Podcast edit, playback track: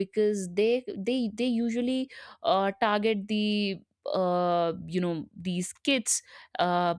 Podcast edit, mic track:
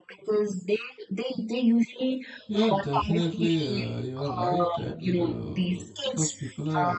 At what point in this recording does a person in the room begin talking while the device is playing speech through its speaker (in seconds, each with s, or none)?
2.5 s